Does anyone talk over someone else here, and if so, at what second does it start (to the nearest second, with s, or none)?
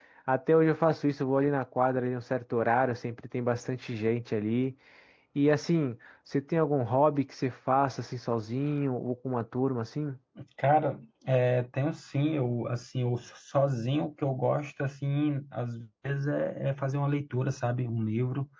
none